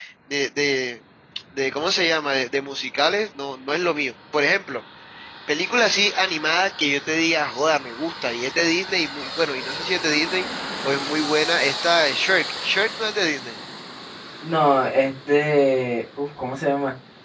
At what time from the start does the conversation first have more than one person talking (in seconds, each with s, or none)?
none